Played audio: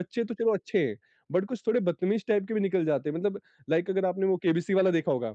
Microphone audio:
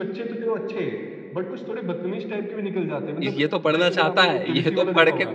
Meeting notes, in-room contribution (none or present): present